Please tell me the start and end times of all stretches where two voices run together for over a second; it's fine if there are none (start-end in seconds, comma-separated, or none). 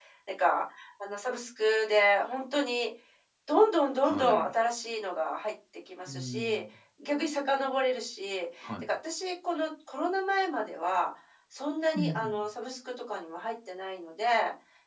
none